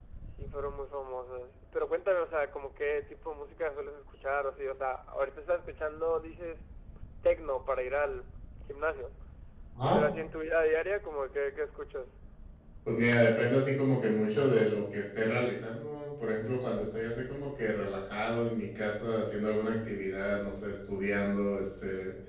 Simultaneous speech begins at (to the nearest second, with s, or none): none